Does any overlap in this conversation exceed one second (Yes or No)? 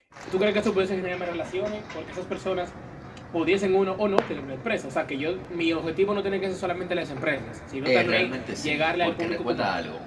Yes